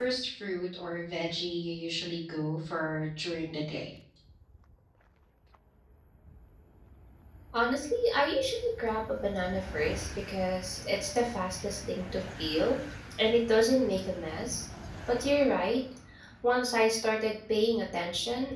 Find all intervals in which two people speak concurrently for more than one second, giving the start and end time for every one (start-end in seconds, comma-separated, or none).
none